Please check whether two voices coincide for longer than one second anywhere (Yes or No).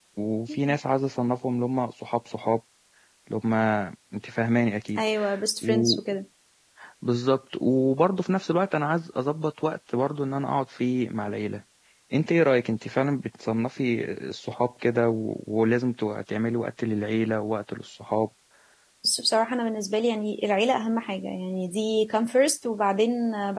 No